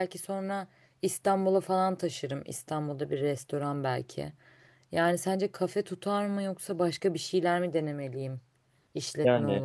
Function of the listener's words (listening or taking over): taking over